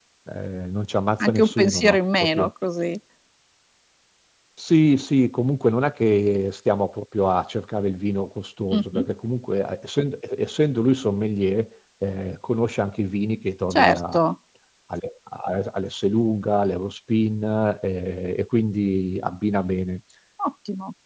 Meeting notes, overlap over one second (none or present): present